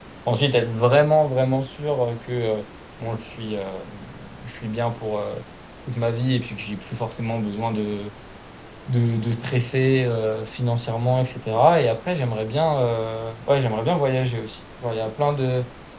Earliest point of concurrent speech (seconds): none

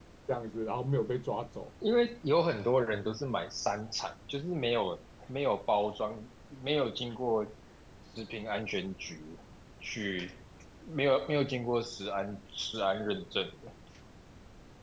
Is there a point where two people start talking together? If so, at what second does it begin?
none

